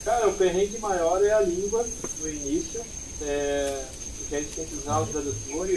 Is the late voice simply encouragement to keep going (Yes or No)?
Yes